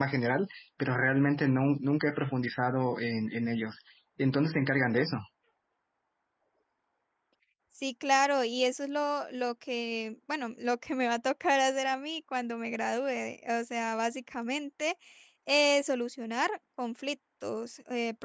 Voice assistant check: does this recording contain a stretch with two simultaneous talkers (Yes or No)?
No